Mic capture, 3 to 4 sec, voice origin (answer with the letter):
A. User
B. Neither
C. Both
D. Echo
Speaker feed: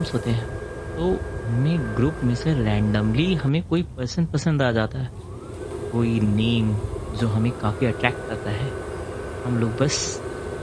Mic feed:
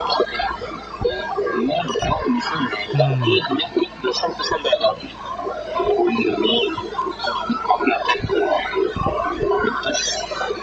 C